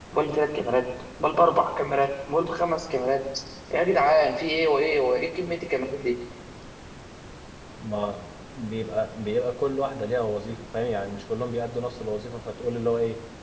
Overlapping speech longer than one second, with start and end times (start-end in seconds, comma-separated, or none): none